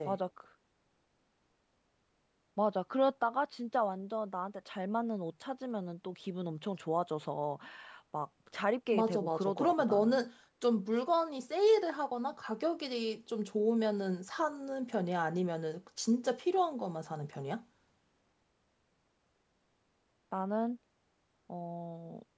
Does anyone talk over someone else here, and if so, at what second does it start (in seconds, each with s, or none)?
8.9 s